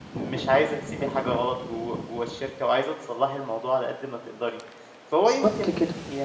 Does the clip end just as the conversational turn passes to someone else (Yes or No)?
No